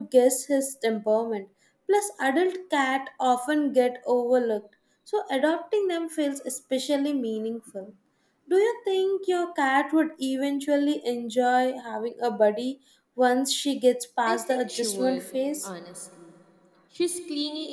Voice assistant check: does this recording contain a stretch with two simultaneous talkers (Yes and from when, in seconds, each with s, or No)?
Yes, from 14.3 s